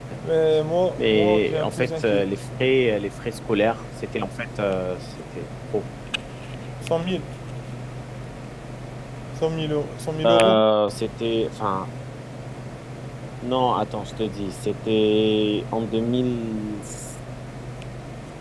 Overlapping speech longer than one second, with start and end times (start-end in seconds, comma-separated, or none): 1.0-2.2